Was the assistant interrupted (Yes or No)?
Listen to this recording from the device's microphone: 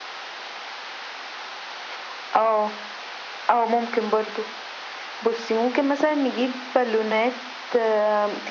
No